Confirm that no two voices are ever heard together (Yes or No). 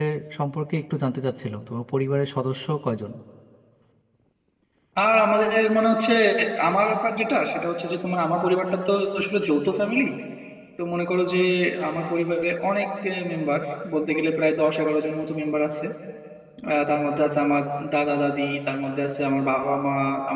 Yes